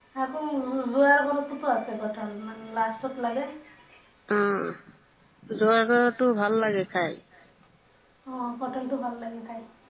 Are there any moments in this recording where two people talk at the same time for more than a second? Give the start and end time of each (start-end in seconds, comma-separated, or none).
none